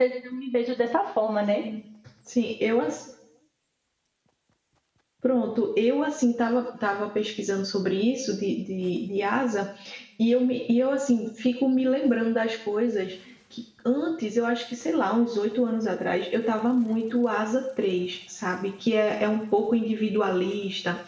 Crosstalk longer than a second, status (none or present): none